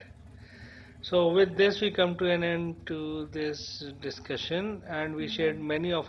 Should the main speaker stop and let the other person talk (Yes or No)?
No